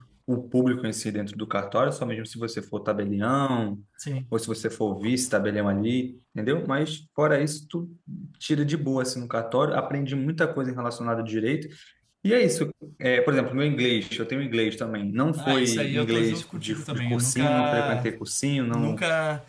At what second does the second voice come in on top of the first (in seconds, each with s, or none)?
15.4 s